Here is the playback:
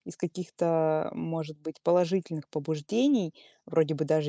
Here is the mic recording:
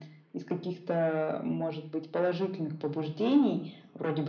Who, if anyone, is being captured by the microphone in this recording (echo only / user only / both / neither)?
echo only